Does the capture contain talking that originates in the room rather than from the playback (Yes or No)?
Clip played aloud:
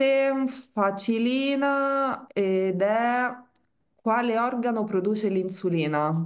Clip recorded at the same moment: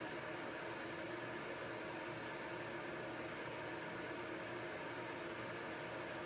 No